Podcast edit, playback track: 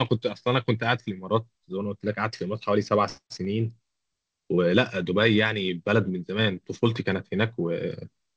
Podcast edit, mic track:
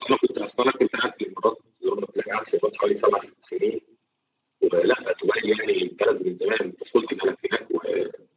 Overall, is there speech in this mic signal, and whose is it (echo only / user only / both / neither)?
echo only